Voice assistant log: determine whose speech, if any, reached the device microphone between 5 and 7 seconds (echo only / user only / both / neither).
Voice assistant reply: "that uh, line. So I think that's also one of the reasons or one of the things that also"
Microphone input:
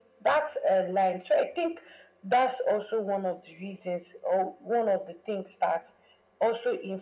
echo only